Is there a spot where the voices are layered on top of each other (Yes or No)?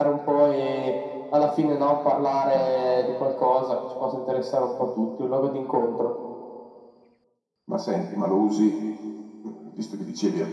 No